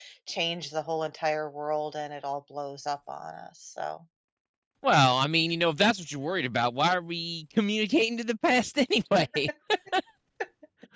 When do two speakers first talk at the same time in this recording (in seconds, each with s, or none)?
none